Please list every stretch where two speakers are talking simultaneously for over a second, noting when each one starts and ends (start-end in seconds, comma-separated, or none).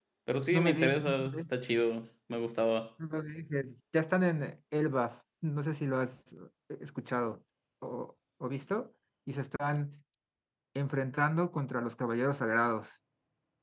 0.5-1.8